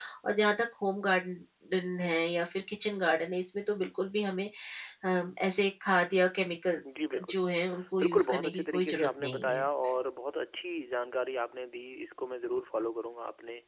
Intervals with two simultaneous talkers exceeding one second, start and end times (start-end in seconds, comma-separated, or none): 8.0-9.7